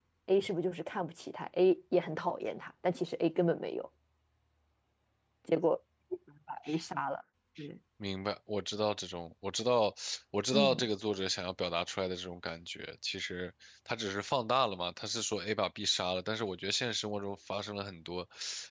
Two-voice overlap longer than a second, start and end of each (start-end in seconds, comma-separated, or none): none